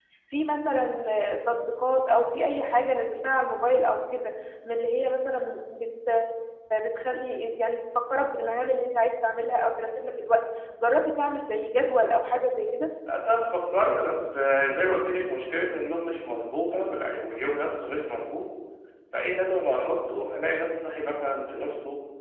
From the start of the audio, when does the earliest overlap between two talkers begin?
none

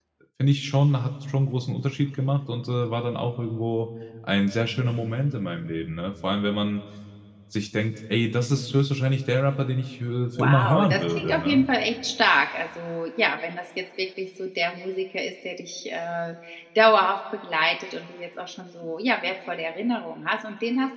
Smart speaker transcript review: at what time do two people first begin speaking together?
10.3 s

